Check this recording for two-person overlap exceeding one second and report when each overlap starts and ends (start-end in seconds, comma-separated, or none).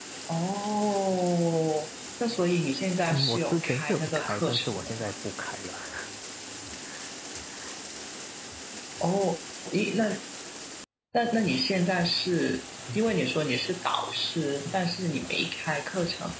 3.1-4.9